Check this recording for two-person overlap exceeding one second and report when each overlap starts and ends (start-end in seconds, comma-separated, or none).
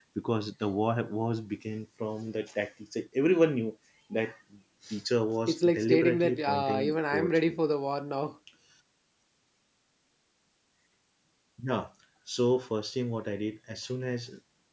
5.5-7.6